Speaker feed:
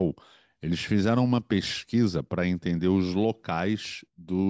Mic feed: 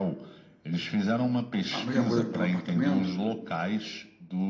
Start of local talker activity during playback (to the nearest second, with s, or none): 2 s